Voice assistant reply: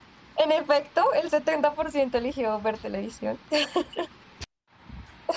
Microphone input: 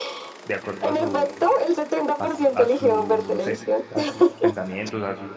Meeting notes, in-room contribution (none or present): present